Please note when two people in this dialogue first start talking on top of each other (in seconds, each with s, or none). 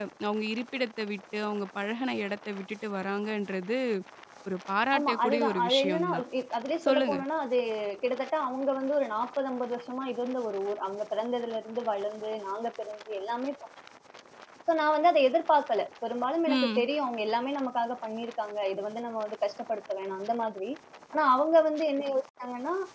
5.0 s